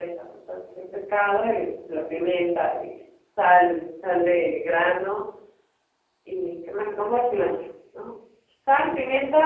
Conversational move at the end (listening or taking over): listening